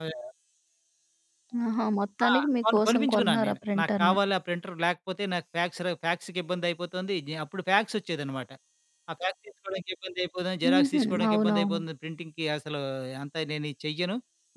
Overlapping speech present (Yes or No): Yes